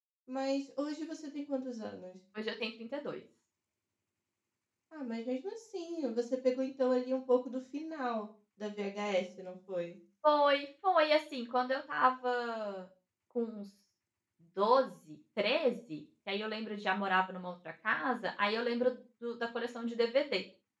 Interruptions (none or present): none